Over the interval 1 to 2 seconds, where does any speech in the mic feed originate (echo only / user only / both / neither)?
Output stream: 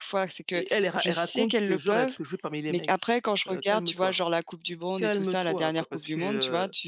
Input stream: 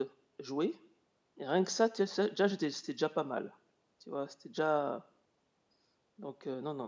user only